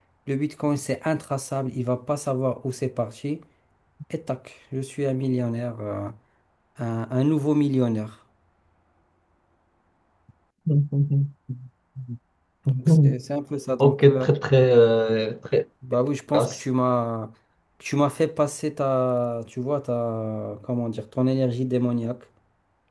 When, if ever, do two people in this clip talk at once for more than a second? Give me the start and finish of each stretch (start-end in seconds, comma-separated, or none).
none